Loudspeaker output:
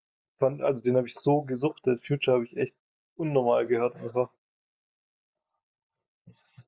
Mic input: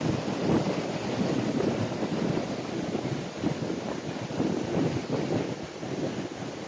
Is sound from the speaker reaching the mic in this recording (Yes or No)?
No